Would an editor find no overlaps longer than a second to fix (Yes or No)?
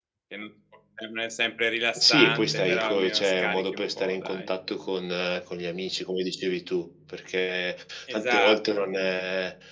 No